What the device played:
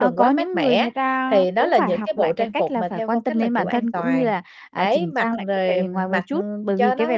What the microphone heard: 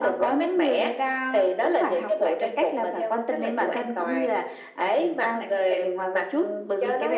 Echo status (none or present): present